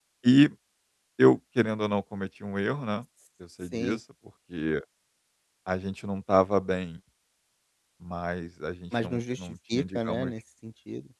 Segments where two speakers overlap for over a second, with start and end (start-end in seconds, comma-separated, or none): 9.0-10.3